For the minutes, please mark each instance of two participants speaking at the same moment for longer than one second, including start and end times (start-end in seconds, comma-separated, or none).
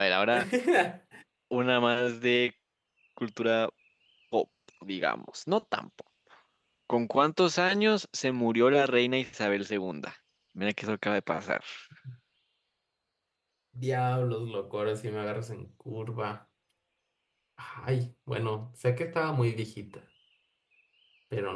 none